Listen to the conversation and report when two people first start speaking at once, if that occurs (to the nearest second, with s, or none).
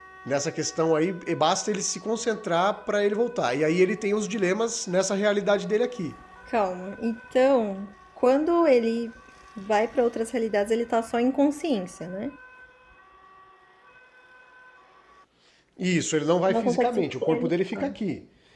16 s